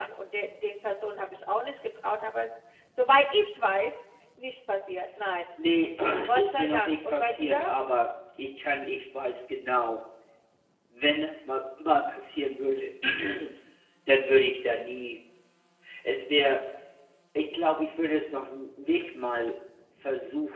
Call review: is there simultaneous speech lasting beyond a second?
Yes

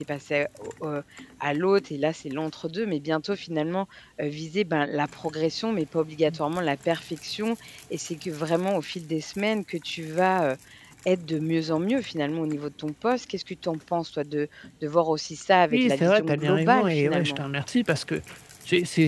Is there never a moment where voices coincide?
No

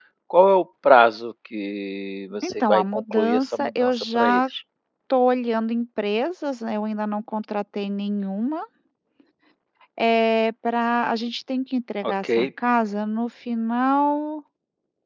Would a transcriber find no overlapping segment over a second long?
No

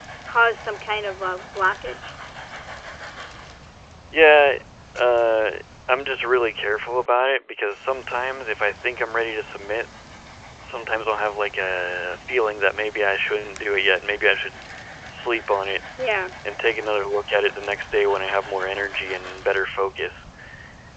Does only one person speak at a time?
Yes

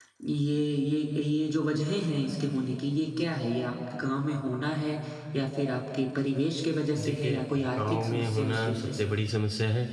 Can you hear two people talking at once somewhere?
Yes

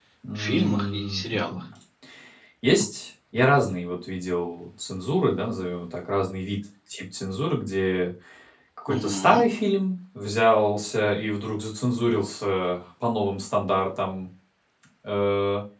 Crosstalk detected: Yes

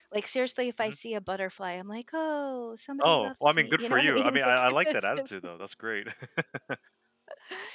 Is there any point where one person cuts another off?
Yes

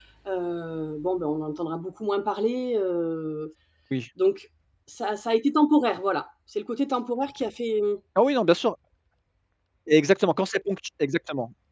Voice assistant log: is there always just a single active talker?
Yes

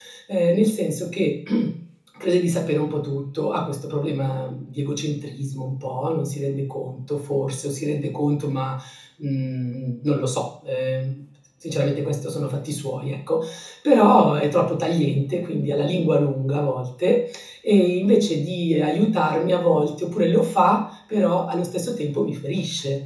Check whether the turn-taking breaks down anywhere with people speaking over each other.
No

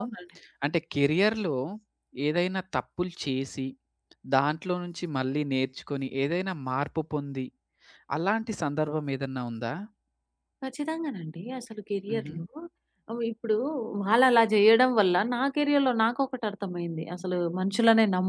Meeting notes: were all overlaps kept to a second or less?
Yes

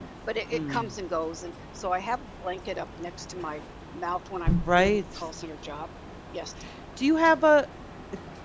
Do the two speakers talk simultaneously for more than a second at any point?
No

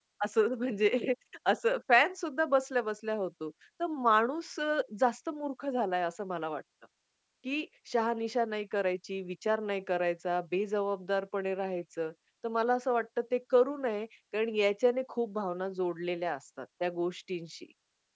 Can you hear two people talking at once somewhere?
No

